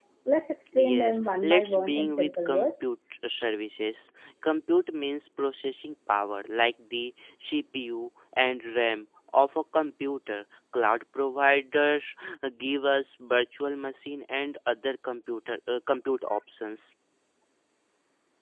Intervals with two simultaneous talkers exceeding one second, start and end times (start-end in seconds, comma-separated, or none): 0.8-2.7